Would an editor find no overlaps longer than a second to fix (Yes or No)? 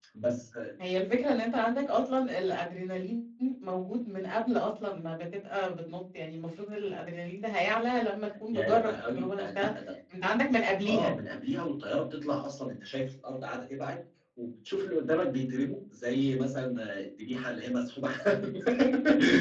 No